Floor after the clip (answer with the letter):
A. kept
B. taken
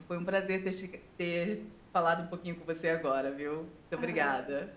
B